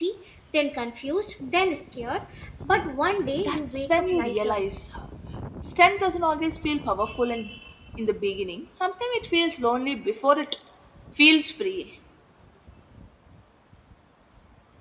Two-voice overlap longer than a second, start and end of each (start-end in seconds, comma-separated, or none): 3.4-4.6